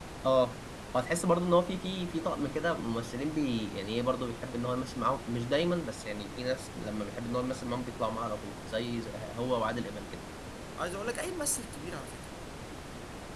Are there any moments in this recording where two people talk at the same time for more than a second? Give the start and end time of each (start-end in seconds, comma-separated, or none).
none